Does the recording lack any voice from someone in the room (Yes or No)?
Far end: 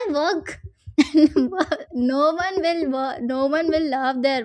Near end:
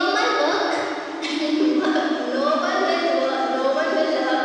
Yes